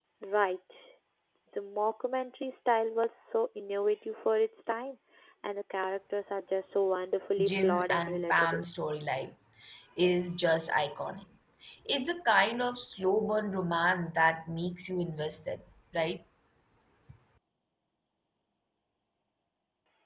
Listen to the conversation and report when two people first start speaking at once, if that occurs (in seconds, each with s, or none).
7.4 s